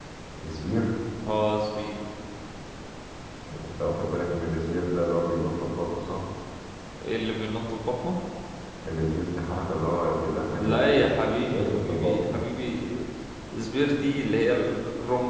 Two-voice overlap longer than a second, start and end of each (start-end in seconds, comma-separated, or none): 10.6-12.4